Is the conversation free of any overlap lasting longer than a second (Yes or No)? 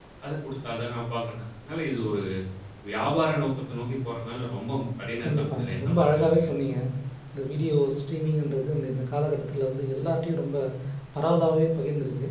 No